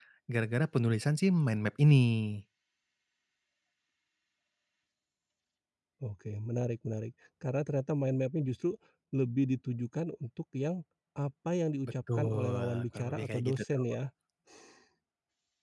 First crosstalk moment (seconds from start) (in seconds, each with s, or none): 12.1 s